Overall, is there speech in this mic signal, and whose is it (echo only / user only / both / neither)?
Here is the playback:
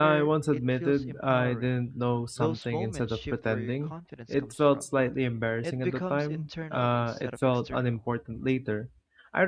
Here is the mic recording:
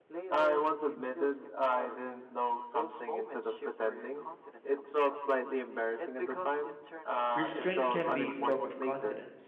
both